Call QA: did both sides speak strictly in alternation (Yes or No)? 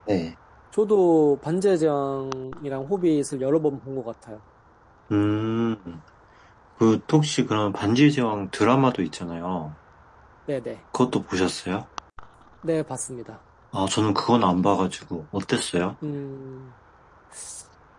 Yes